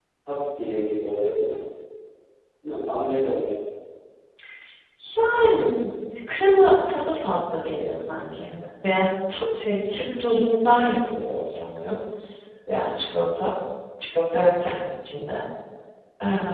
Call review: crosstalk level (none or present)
none